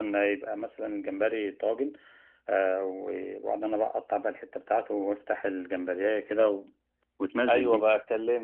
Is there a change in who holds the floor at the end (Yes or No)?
Yes